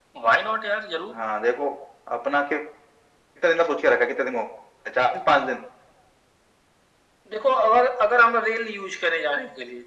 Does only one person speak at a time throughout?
Yes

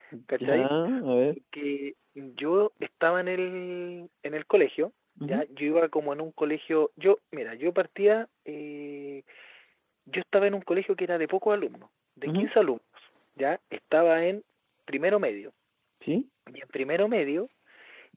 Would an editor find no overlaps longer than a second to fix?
Yes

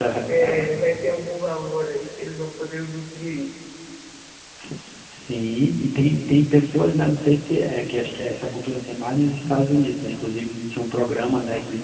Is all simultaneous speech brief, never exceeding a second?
Yes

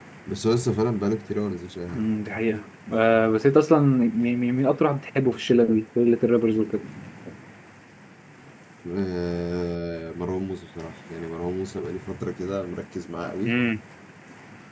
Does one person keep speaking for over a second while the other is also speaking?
No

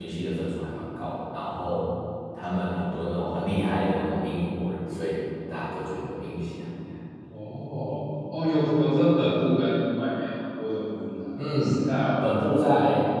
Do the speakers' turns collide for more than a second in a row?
No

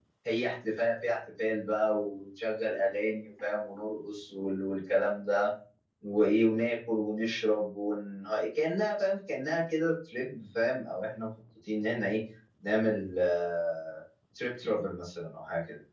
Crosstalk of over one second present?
No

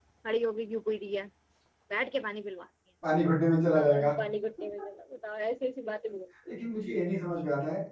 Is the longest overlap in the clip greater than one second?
No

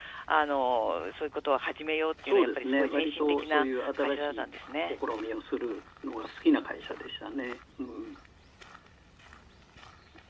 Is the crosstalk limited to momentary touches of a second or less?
No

